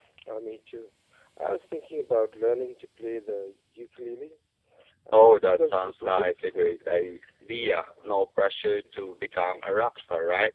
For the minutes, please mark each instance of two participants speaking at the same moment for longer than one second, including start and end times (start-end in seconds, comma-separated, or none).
5.1-6.7